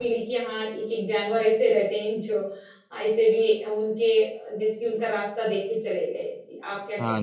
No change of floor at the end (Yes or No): No